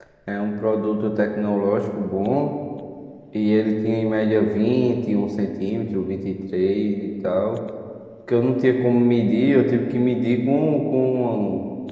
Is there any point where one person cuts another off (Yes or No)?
No